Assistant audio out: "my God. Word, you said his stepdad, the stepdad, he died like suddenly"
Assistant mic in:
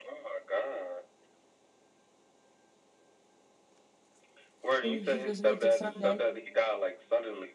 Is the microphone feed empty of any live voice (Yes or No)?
No